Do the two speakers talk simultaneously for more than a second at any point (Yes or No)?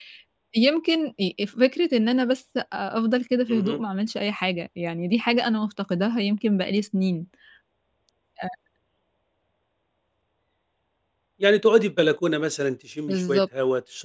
No